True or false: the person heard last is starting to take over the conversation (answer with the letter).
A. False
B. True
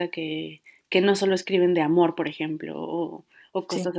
A